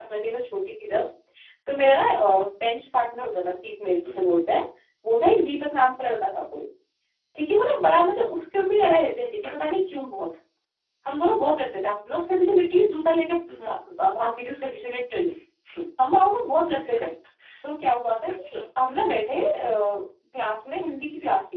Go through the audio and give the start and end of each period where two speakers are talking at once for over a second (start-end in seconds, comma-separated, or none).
none